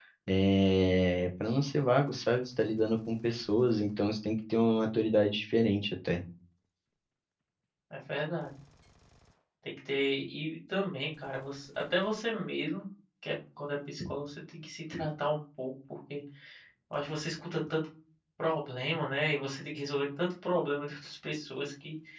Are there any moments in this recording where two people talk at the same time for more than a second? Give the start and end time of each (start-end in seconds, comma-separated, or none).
none